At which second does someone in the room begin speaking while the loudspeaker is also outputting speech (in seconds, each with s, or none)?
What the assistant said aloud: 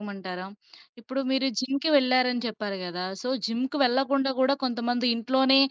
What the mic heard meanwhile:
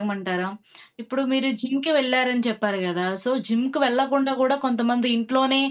none